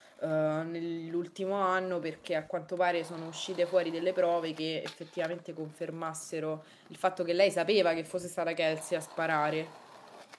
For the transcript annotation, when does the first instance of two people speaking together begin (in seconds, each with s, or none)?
none